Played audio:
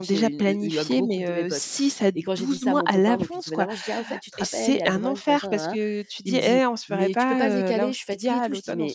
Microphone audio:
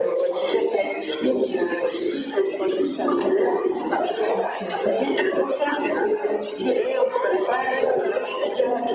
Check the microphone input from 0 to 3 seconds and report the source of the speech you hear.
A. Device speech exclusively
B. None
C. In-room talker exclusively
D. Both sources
A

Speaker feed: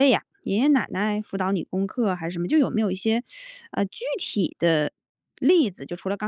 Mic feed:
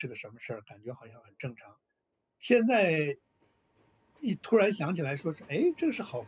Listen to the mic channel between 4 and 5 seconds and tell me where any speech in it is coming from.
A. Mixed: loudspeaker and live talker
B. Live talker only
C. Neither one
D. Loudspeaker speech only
B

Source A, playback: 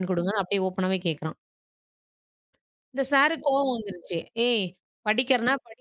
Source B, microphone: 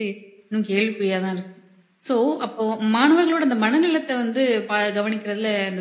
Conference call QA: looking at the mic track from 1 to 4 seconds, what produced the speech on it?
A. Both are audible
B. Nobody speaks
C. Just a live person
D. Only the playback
C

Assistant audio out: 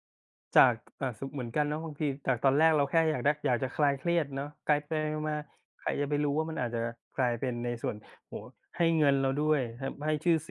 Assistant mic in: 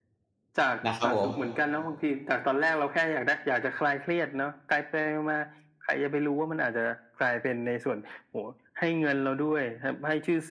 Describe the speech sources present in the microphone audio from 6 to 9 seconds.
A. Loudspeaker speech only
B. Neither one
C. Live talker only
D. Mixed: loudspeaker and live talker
A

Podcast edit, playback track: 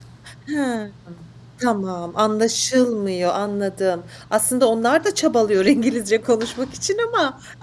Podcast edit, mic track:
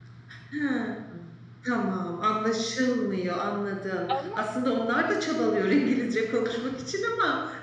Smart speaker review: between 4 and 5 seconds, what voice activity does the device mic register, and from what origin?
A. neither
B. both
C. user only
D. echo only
B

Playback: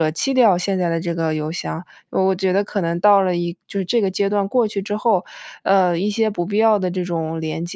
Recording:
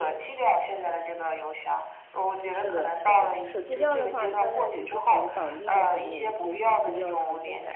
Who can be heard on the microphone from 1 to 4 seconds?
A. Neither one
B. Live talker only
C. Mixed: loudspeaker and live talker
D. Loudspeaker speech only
C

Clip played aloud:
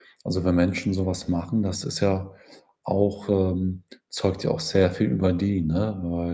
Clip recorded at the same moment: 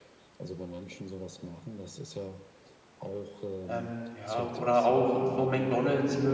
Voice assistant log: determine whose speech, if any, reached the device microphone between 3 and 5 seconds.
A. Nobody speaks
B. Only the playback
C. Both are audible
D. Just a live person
C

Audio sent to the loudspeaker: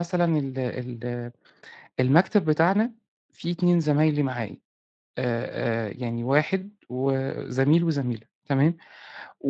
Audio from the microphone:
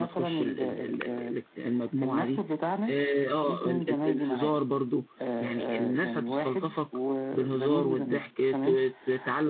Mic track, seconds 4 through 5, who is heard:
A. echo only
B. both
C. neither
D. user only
B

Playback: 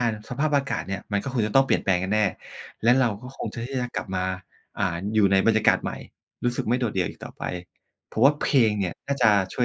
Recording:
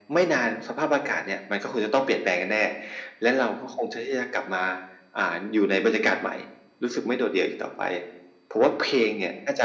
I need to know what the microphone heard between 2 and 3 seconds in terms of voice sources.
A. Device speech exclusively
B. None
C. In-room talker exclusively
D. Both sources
A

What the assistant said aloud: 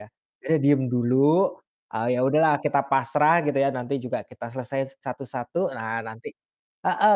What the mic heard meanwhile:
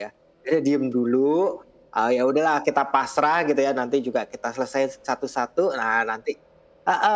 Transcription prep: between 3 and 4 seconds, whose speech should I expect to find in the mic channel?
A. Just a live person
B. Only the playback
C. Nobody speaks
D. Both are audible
B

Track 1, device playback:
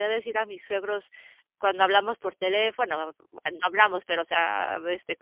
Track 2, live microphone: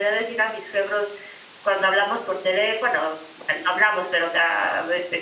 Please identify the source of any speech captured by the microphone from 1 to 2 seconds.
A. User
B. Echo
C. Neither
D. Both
B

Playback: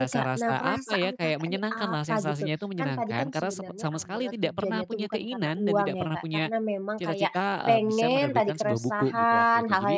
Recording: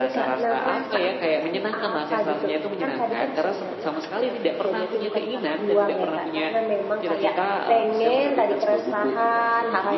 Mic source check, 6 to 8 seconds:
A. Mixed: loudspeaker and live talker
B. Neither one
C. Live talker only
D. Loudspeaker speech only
D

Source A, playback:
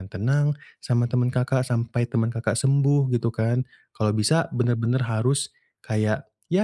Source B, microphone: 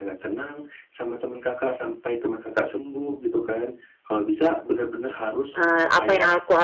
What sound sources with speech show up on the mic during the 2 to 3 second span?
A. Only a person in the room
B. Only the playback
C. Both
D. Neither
B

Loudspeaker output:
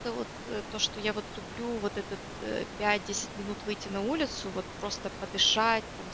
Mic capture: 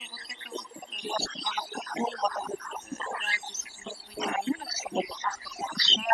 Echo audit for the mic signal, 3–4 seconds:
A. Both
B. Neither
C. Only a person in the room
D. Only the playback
D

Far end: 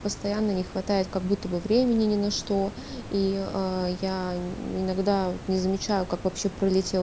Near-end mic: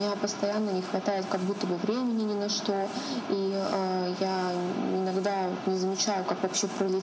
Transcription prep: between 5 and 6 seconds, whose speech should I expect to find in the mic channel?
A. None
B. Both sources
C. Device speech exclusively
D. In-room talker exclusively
C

